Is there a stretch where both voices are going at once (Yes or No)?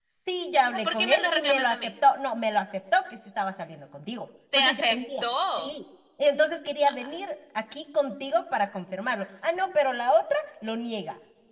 Yes